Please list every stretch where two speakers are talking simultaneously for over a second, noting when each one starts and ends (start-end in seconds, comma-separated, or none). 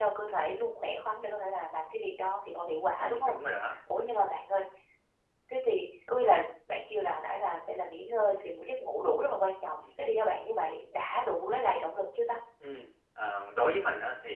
none